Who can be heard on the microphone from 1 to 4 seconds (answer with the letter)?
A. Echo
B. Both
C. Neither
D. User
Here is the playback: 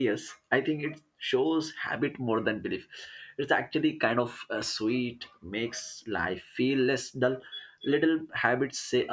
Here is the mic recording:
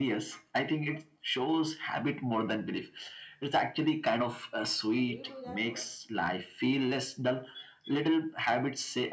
A